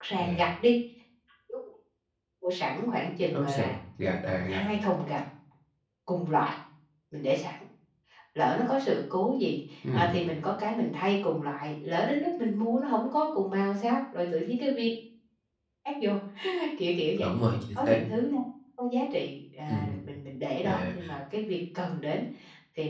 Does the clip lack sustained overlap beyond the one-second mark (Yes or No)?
Yes